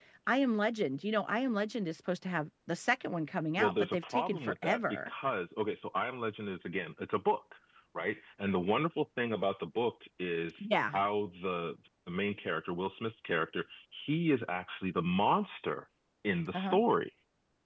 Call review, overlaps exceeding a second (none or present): present